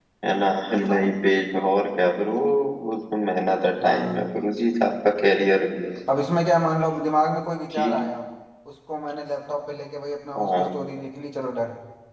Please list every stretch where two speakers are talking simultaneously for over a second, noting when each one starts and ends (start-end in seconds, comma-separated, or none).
none